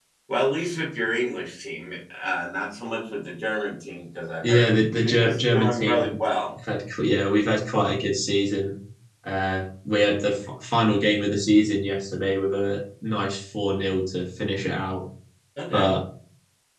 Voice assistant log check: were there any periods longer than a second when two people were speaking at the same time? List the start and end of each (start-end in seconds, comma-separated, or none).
4.4-6.2